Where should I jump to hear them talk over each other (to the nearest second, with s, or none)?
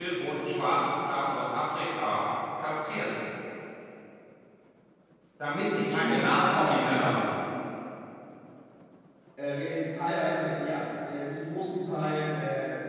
6 s